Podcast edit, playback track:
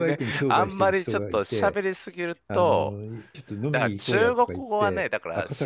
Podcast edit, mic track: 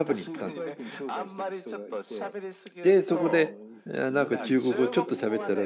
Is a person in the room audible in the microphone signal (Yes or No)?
Yes